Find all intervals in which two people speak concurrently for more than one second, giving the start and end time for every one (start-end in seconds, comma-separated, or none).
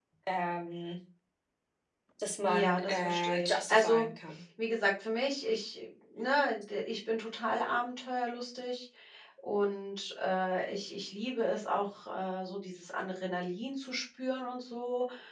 2.4-4.1